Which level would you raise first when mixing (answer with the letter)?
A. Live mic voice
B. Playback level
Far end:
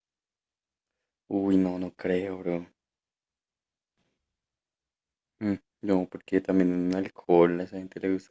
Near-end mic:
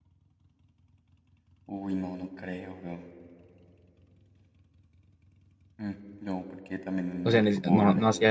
B